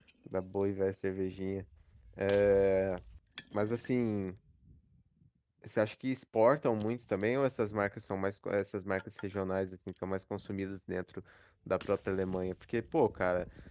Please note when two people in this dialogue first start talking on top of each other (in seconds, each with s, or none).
none